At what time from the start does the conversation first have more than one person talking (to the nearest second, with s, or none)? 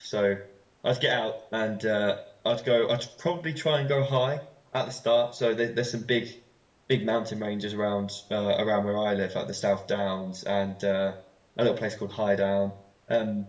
none